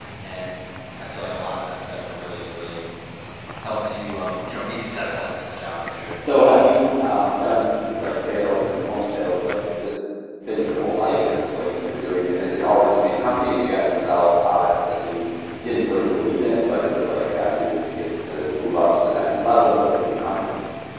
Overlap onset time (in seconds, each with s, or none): none